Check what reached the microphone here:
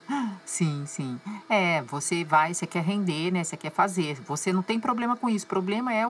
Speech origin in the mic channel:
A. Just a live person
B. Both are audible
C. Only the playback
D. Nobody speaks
C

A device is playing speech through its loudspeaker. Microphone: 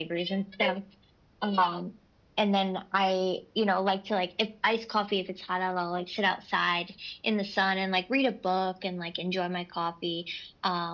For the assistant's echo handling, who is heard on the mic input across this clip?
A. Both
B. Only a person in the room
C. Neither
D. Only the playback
D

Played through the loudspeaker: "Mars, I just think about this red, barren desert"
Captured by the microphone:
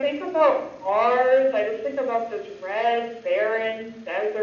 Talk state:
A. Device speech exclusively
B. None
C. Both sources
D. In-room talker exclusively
A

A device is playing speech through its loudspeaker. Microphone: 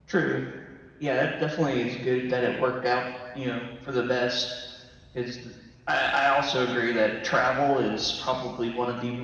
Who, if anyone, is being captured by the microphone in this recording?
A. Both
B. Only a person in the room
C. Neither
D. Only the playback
D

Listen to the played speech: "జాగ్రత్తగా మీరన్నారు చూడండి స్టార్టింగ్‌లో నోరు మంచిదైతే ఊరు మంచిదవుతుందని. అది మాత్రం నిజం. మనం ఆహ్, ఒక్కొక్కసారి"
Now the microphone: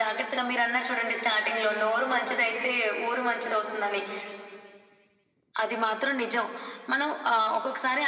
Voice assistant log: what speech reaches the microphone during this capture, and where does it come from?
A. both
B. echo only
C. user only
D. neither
B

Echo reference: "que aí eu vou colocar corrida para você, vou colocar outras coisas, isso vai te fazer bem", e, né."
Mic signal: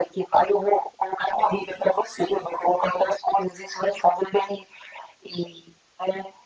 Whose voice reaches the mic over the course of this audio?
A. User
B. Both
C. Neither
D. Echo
D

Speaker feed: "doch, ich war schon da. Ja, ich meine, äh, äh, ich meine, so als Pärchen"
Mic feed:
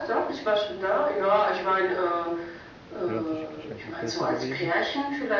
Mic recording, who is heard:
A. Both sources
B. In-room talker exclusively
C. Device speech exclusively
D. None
A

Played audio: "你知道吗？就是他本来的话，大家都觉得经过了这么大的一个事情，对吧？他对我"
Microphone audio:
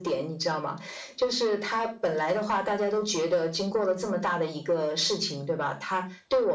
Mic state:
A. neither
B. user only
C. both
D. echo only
D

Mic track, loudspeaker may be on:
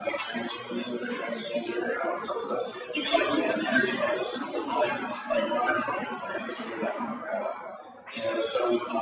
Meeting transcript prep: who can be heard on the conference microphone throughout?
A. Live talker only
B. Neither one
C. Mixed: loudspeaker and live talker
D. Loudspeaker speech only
D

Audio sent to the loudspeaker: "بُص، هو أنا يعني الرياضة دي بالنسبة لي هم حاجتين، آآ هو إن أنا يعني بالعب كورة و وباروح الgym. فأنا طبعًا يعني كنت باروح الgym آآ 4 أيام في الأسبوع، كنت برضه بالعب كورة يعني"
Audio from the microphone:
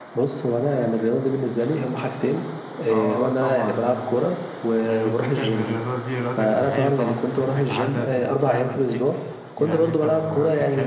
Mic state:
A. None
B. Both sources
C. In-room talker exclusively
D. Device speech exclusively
B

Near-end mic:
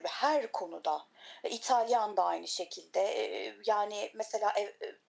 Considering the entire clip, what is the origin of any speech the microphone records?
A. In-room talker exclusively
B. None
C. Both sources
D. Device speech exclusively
D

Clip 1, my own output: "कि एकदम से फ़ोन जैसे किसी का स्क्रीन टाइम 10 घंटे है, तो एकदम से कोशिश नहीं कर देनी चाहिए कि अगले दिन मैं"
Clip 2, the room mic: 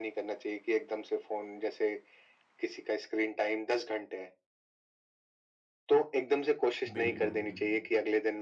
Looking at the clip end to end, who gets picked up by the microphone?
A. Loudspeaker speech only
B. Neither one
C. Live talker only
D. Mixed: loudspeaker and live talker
D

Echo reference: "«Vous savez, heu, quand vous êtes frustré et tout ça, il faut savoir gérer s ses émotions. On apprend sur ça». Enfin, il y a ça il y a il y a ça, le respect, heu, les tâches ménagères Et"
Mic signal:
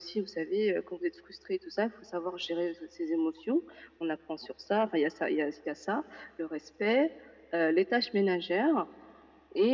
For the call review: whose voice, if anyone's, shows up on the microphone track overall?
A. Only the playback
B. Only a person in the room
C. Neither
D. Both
A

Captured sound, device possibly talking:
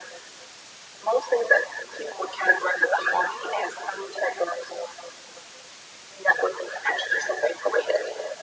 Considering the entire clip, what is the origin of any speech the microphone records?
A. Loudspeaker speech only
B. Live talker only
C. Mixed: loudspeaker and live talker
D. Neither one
A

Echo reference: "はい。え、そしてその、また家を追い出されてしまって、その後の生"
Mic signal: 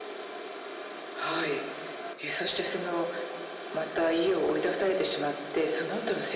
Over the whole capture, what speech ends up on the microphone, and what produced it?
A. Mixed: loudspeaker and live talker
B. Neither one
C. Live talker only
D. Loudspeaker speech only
D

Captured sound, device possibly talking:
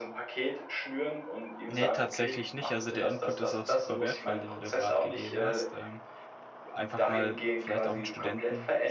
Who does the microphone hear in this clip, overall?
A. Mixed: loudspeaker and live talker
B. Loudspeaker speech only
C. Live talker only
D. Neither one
A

